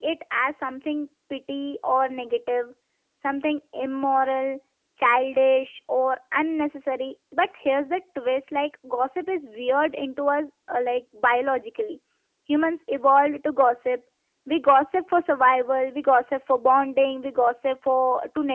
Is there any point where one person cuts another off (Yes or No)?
No